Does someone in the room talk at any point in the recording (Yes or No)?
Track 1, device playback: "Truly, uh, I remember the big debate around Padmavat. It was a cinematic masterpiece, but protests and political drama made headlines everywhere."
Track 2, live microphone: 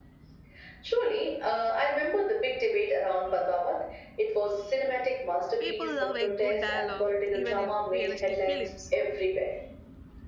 Yes